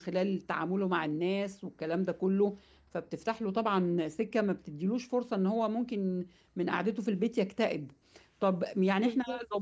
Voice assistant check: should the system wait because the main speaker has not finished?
Yes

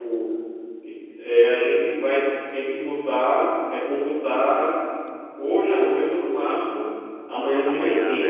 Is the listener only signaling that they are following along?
Yes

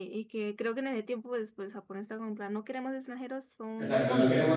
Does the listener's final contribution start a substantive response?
Yes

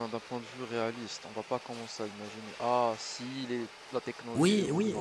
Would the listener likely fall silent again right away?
No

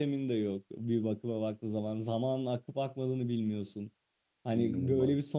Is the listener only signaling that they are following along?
Yes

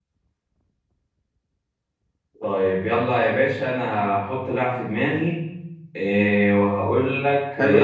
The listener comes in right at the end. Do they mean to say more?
Yes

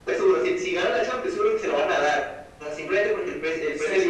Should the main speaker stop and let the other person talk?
Yes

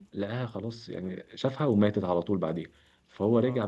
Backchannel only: Yes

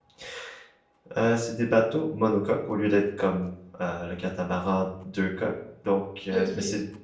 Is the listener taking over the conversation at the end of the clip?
No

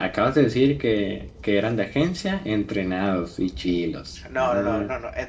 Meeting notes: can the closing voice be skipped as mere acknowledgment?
No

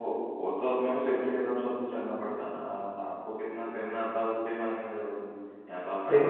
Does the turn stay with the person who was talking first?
No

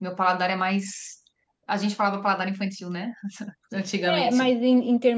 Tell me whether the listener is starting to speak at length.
Yes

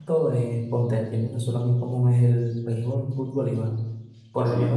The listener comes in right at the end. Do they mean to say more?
No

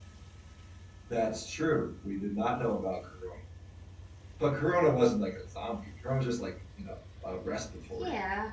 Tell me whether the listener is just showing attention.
No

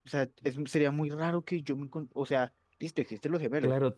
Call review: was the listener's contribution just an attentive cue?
No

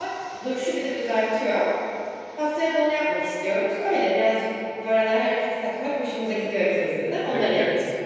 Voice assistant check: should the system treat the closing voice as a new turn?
Yes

